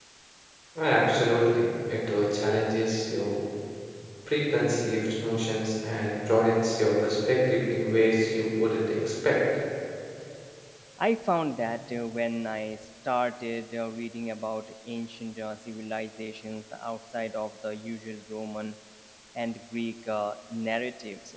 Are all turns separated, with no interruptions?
Yes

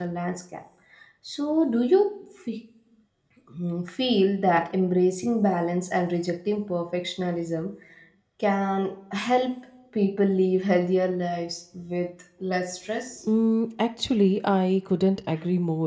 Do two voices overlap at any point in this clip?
No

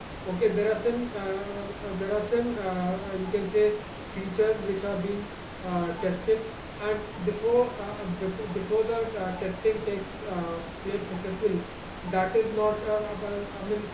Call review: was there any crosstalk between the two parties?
No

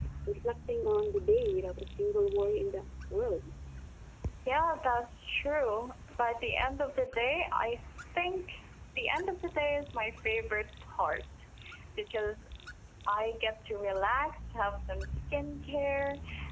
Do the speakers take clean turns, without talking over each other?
Yes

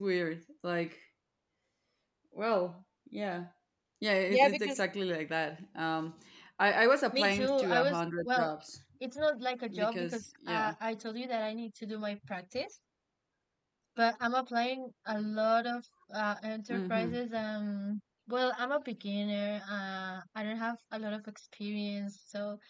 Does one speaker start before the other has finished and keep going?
Yes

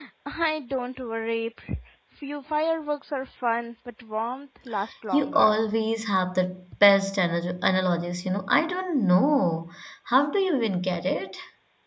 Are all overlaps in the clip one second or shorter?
Yes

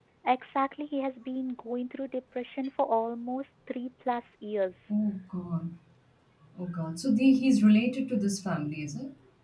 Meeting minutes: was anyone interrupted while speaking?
No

